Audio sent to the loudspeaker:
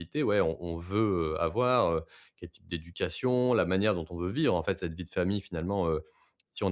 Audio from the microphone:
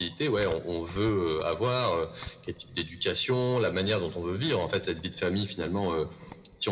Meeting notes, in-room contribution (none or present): none